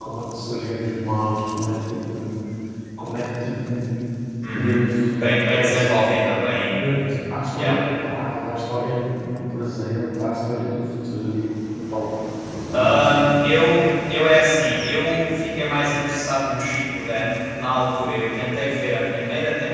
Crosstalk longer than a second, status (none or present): none